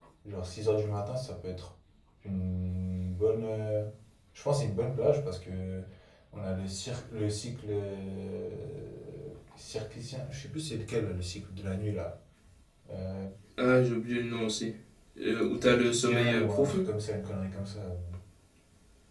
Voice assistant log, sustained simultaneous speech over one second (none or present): present